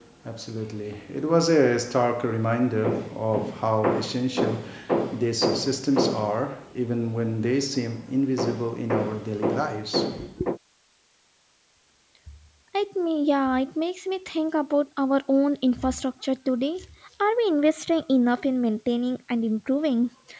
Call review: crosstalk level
none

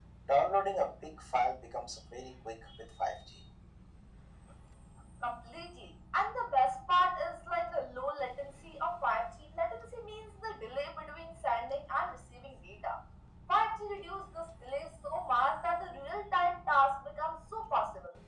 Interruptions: none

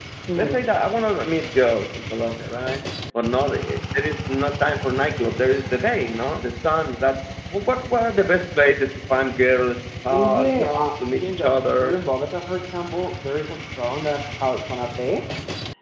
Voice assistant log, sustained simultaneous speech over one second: present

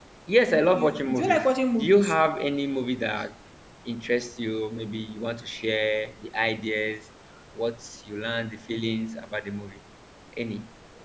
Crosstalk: present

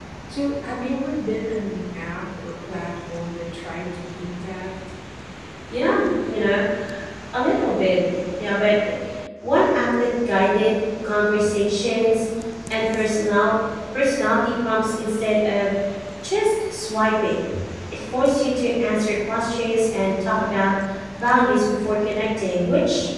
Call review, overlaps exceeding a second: none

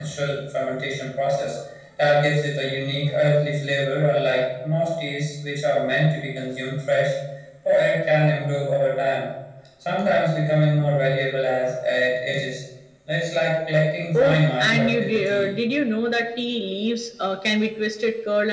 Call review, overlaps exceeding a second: present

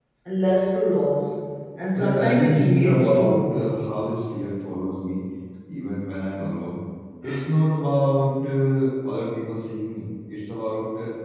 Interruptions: present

